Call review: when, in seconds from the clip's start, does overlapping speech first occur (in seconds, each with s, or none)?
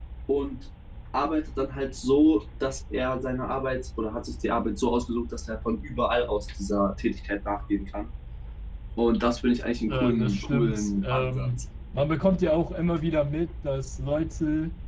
9.9 s